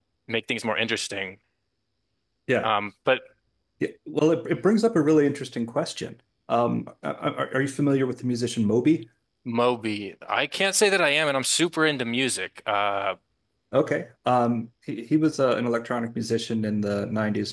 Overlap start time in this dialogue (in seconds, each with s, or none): none